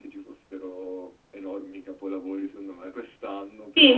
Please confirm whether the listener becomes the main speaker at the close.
Yes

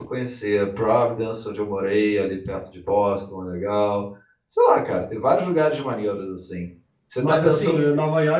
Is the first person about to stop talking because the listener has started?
Yes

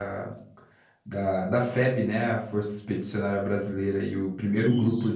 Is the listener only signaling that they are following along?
Yes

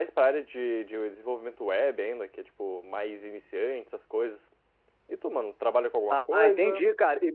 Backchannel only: No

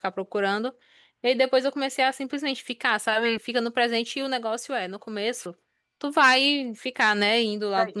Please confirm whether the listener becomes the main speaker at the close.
No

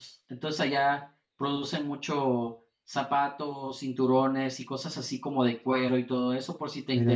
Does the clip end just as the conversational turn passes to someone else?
No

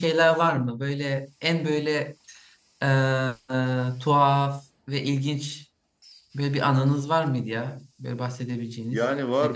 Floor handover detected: Yes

